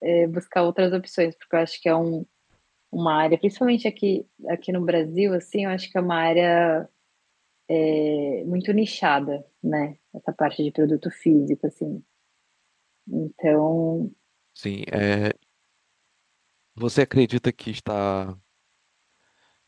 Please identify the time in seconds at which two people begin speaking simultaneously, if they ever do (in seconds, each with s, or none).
none